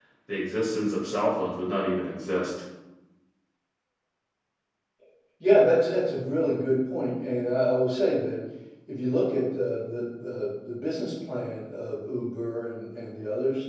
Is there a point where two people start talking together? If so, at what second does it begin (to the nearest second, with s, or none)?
none